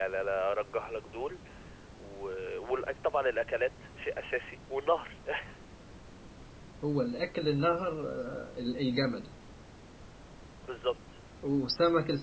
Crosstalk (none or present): none